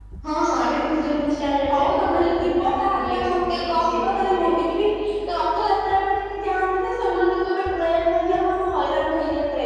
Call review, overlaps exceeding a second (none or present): present